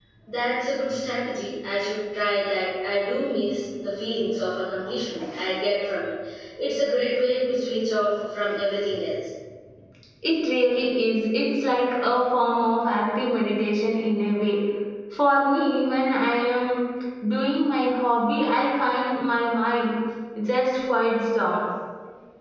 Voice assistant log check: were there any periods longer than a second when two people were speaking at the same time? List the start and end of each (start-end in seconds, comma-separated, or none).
none